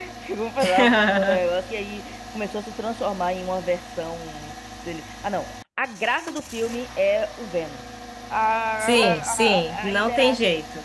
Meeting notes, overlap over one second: present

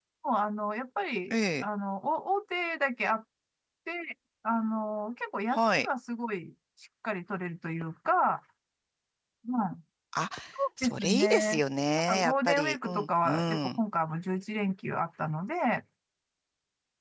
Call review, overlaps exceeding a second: present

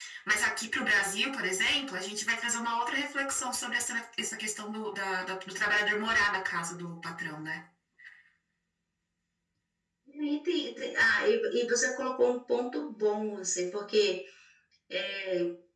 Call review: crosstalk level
none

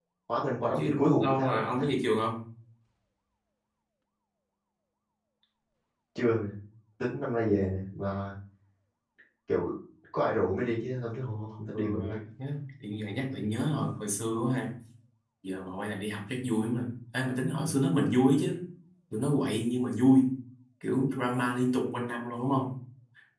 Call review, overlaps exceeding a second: present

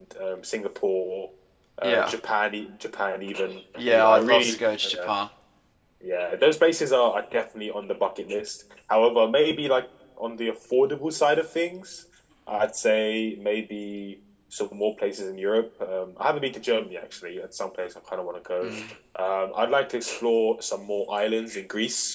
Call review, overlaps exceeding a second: present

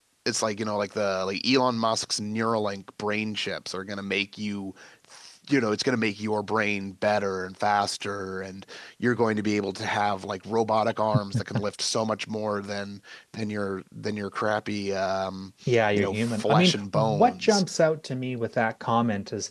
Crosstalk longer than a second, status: present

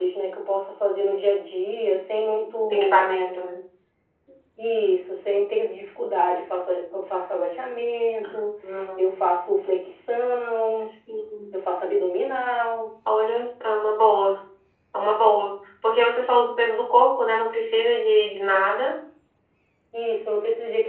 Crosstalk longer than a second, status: none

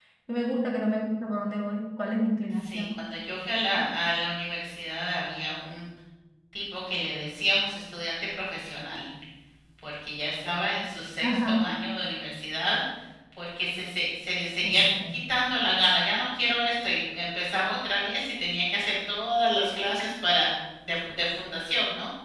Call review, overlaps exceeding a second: none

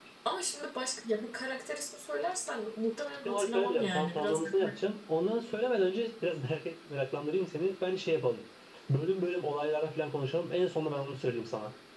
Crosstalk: present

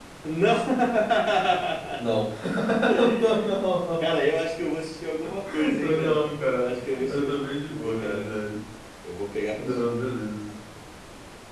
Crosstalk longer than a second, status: present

